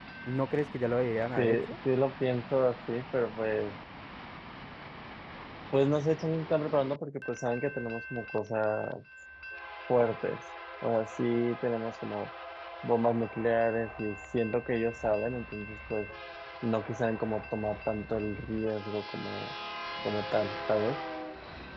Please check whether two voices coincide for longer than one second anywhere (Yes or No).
No